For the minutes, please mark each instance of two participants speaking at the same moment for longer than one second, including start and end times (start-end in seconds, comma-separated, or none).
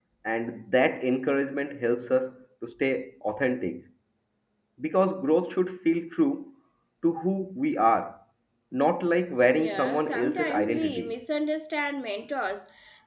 9.5-11.1